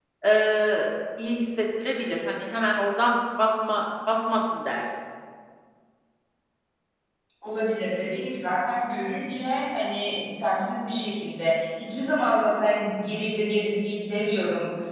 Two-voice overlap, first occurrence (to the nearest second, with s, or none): none